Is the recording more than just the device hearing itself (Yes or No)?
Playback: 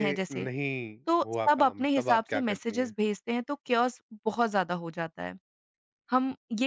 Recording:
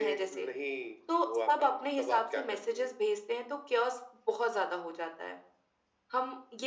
No